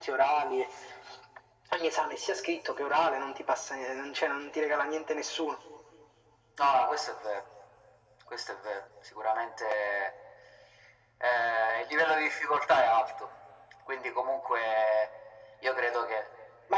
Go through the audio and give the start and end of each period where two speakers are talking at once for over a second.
none

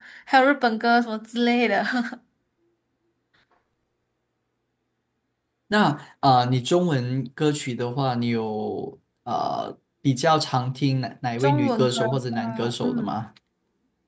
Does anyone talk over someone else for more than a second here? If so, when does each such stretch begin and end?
11.4-13.1

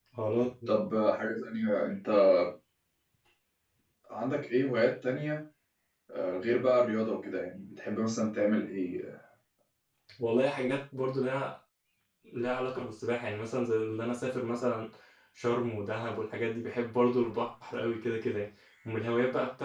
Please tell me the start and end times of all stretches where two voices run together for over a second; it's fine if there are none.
none

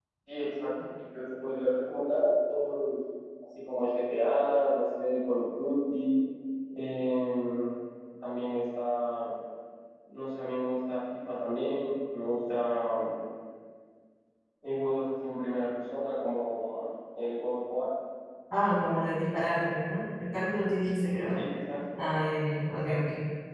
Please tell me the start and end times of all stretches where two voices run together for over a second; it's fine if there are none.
none

